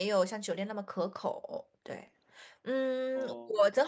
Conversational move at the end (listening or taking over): listening